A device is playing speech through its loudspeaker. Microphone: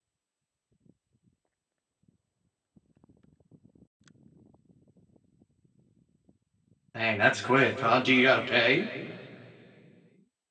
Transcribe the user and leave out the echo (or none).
Dang, that's quick, huh? Do you gotta pay?